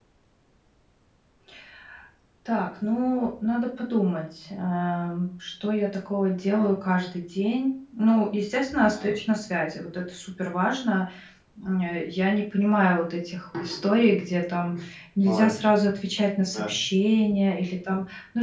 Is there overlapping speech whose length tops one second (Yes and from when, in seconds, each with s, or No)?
No